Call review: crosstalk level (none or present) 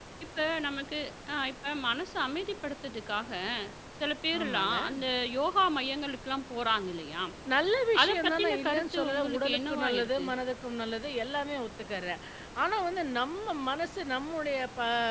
present